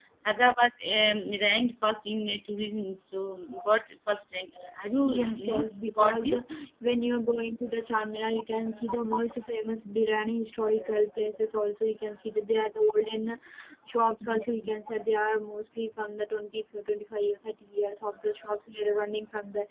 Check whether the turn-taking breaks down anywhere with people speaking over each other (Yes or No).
Yes